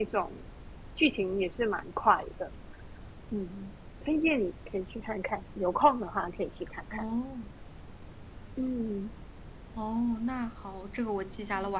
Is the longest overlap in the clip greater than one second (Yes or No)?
No